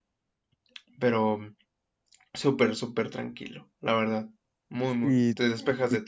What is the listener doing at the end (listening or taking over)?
taking over